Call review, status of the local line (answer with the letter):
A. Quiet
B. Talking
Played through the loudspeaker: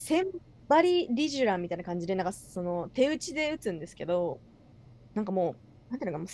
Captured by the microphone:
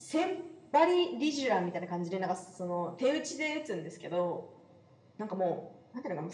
A